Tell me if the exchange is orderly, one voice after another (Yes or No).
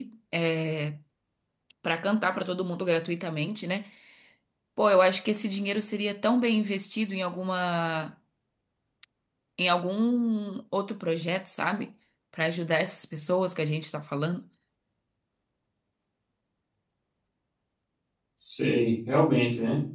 Yes